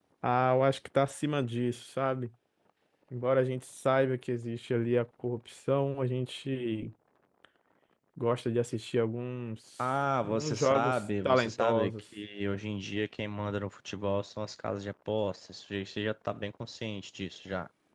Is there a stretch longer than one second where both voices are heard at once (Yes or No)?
Yes